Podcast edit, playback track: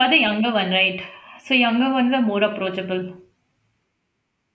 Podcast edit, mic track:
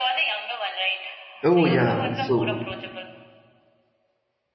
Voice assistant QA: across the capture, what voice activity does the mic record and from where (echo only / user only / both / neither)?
both